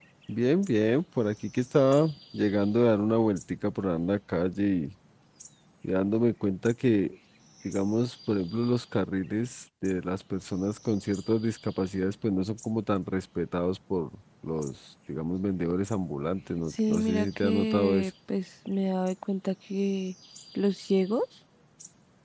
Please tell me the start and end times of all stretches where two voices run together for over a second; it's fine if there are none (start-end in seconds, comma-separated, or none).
16.7-18.1